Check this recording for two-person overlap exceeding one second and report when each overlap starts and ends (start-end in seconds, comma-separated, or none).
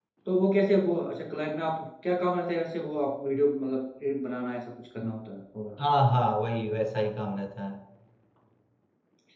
none